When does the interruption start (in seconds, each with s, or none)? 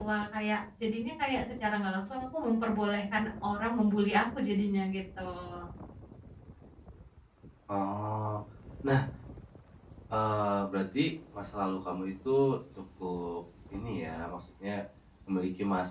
none